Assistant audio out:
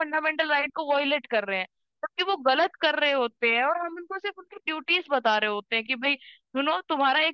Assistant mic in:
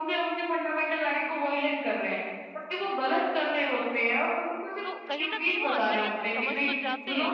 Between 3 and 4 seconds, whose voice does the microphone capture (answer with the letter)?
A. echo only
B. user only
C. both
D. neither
A